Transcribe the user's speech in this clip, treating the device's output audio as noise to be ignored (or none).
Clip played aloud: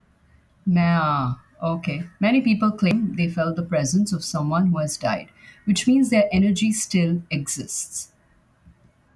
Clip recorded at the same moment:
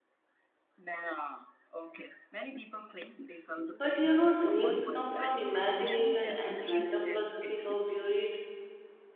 But you know, dreams come from imagination and random processing of buried